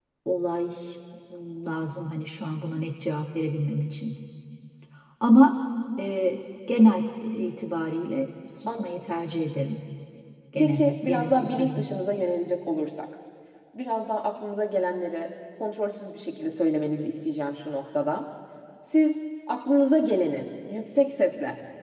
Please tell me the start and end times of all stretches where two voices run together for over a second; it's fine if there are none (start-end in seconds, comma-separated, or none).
10.6-11.9